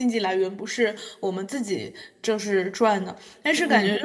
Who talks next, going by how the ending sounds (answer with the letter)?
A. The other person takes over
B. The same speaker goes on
B